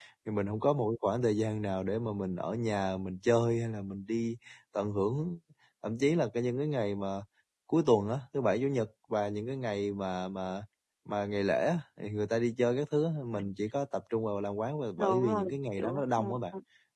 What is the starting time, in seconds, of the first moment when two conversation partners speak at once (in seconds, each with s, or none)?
15.0 s